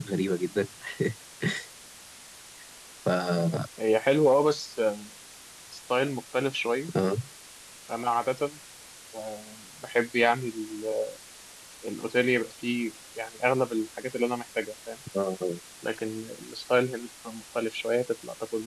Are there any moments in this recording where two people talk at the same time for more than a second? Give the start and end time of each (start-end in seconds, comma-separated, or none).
none